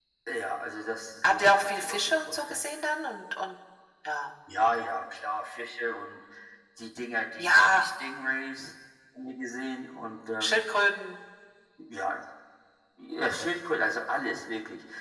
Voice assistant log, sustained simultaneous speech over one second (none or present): present